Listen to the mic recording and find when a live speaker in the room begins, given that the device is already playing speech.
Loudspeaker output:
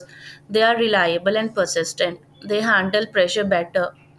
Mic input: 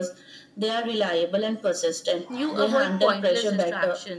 2 s

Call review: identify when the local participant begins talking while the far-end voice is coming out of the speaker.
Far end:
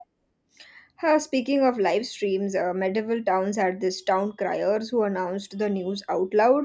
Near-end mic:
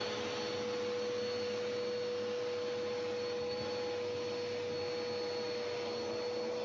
none

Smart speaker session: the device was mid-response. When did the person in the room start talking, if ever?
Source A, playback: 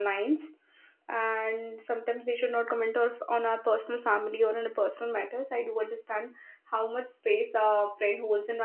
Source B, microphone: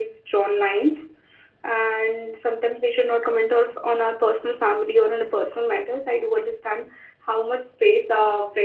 none

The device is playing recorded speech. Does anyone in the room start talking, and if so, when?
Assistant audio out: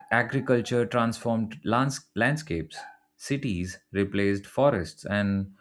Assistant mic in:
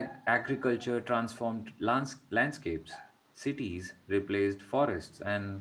none

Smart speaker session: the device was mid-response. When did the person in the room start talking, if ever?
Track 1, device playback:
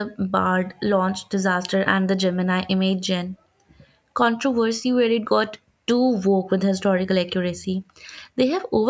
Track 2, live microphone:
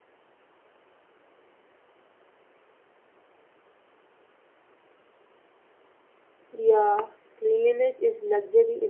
7 s

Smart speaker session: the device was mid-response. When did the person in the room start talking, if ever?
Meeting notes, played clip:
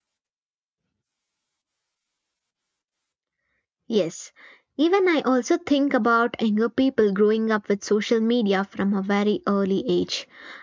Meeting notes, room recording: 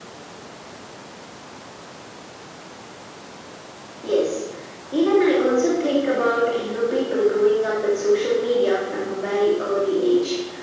none

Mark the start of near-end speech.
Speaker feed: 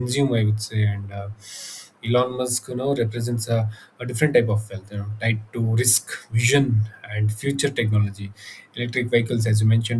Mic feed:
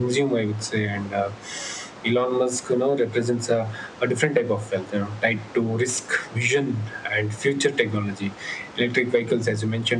none

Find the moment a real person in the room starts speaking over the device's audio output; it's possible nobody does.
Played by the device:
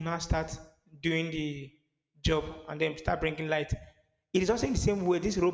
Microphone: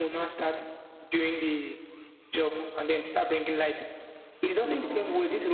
5 s

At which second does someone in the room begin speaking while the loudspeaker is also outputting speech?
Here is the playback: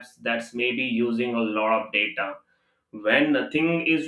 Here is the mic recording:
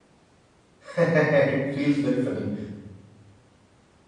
1 s

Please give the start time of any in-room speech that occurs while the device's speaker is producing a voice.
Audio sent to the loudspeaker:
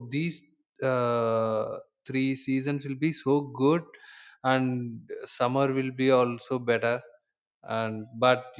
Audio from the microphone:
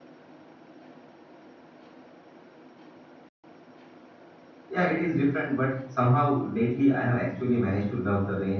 5 s

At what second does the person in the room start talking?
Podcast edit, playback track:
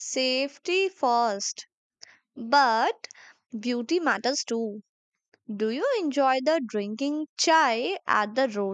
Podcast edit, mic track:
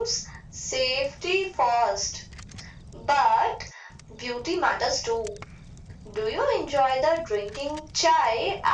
none

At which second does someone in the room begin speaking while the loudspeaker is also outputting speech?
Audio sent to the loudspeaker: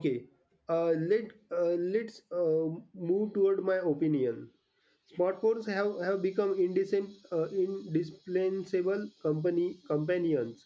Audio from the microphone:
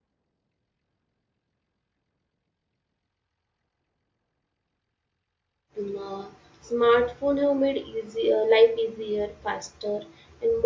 6 s

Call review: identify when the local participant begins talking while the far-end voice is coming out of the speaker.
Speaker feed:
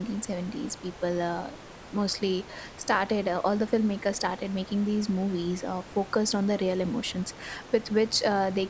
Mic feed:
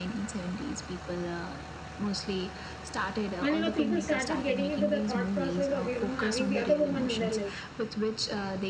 3 s

